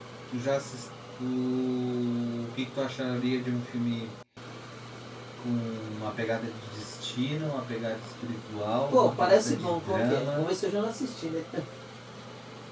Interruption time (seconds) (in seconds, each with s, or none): 8.9 s